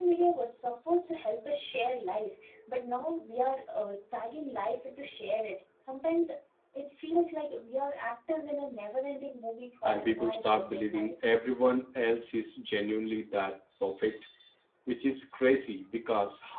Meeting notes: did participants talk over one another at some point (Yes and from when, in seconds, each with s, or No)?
Yes, from 9.8 s